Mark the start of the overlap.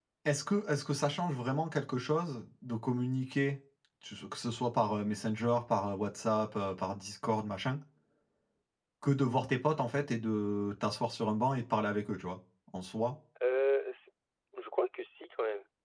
none

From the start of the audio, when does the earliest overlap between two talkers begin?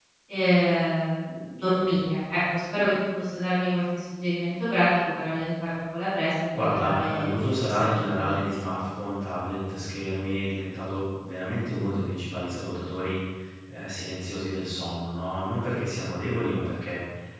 6.5 s

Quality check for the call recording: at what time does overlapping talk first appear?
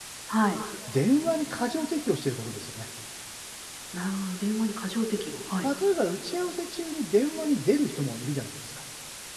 none

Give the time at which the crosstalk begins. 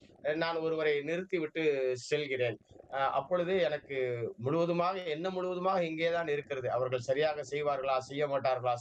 none

